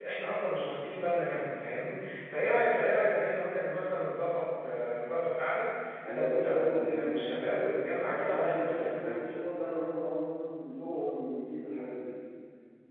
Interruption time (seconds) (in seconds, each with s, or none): 6.0 s